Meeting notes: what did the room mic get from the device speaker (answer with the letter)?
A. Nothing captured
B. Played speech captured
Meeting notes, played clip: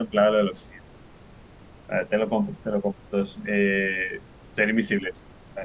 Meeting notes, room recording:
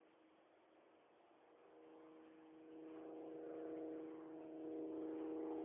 A